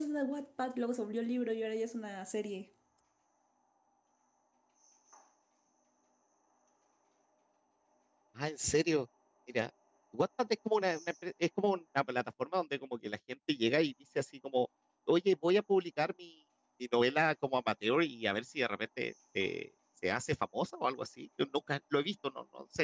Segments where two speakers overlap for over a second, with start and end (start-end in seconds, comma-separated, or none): none